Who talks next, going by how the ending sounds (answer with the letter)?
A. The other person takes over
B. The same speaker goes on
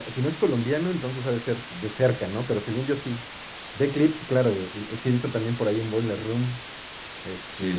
A